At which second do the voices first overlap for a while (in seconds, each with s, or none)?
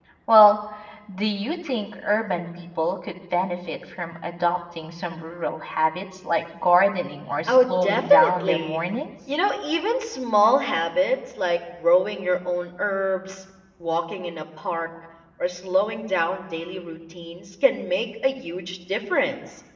7.5 s